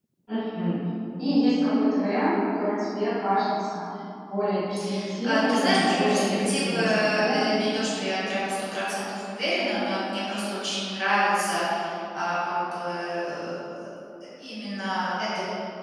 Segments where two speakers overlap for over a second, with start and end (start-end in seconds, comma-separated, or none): 5.2-7.6